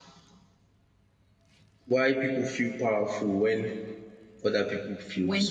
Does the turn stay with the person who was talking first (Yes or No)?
No